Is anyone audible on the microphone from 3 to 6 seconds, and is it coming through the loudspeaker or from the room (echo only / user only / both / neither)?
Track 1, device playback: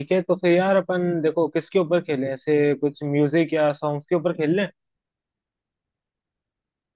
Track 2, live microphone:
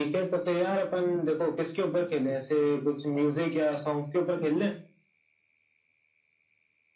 echo only